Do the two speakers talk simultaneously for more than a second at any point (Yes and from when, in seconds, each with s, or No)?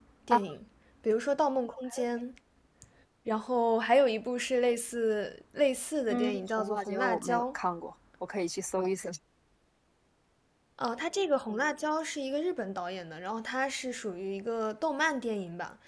Yes, from 6.1 s